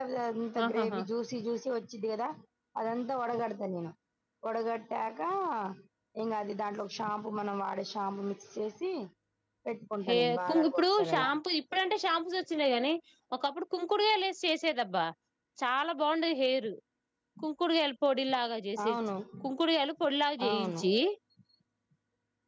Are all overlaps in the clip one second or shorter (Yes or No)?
No